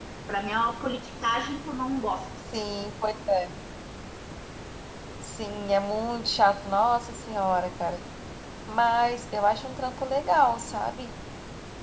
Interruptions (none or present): none